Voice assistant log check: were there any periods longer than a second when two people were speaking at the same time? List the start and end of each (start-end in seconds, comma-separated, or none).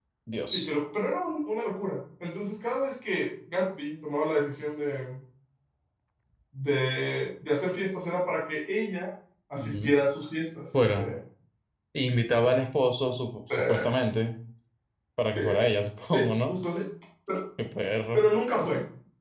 none